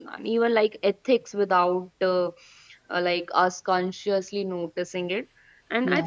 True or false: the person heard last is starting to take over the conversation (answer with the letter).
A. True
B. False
B